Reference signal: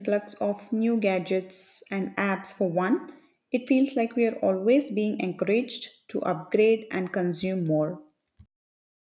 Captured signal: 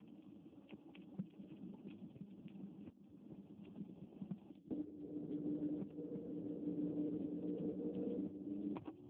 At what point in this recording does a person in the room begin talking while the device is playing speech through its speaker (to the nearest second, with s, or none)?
none